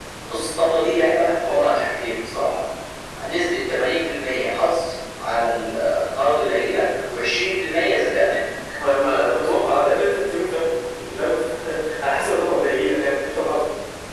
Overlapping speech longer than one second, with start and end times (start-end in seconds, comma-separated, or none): none